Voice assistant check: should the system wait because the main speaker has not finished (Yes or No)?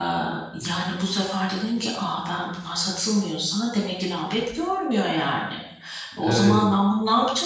Yes